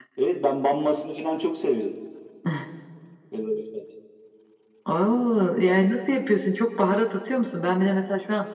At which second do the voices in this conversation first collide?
none

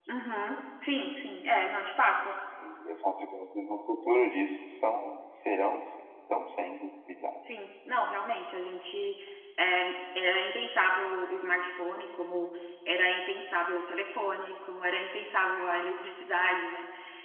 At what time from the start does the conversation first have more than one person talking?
none

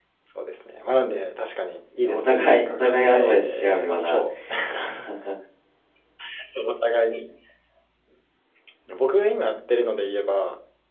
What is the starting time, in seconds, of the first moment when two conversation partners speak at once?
2.0 s

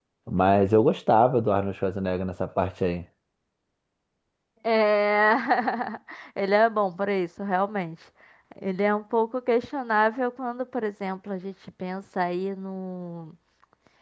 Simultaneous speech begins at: none

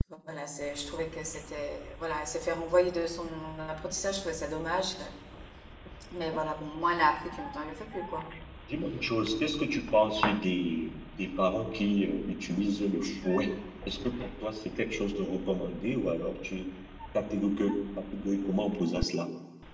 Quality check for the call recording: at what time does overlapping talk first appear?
none

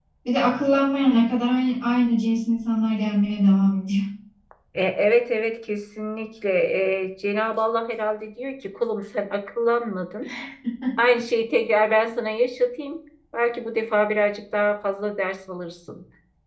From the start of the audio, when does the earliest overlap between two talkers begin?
none

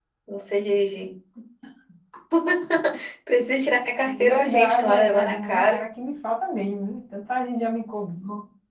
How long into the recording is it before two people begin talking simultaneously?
4.0 s

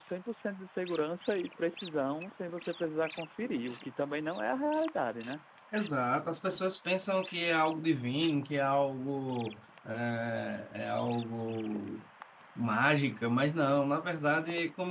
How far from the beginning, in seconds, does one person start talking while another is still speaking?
none

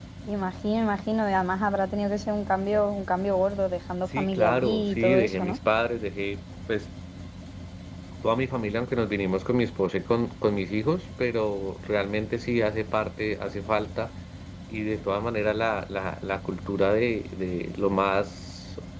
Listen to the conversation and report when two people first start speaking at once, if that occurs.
4.1 s

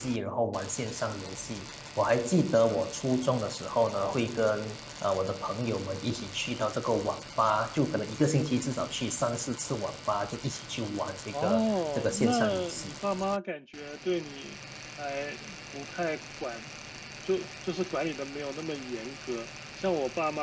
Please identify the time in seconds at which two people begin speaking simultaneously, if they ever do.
11.3 s

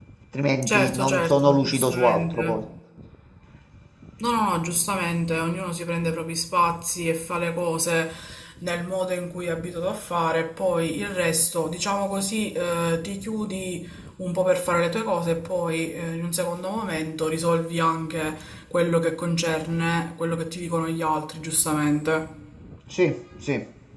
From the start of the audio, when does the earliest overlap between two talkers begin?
0.7 s

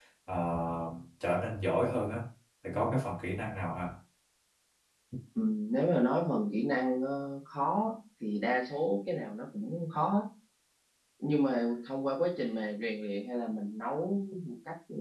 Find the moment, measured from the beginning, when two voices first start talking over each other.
none

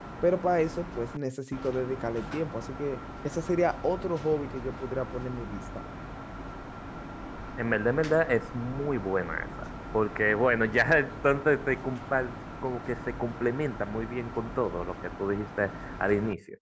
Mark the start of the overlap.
none

